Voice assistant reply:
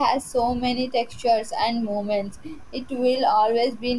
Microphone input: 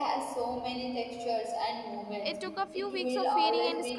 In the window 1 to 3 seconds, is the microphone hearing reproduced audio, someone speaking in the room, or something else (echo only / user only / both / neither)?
both